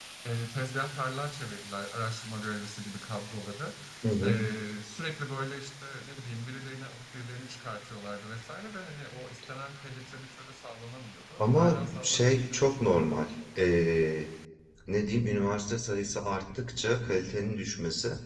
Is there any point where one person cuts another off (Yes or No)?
Yes